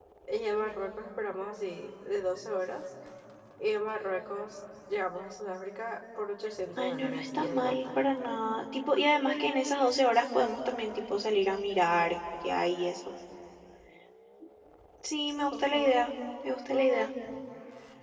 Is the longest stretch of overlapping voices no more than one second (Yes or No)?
No